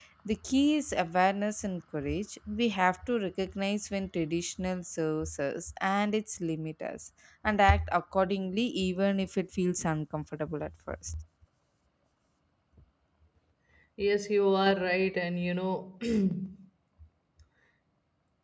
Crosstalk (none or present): none